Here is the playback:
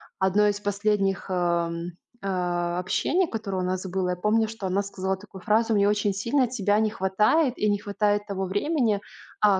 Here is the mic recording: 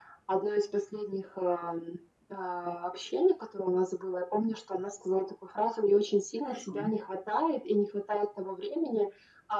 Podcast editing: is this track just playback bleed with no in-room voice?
No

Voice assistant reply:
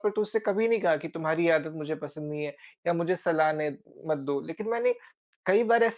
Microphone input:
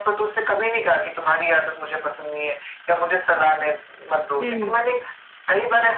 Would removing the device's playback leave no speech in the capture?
No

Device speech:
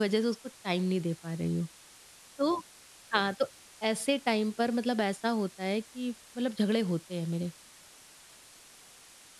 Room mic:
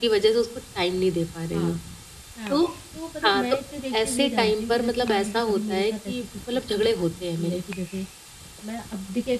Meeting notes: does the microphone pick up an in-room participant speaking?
Yes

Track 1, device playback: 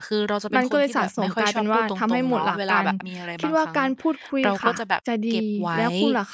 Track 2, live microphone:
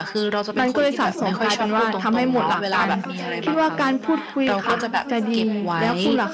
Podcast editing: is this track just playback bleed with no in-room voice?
No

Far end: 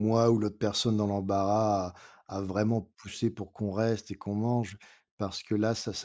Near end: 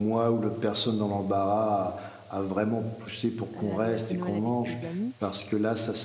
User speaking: Yes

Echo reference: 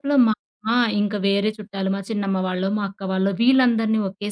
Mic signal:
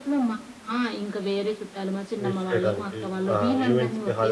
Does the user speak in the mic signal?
Yes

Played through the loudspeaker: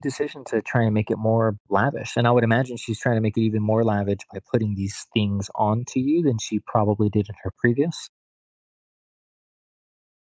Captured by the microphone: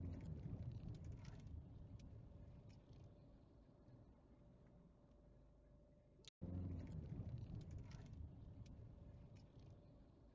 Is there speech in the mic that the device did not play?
No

